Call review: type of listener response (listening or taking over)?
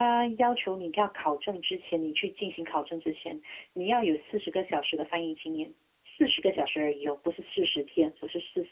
taking over